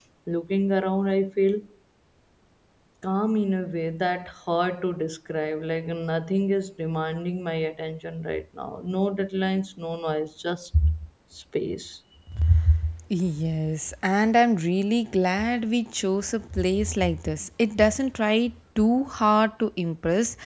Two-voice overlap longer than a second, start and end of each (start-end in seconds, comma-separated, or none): none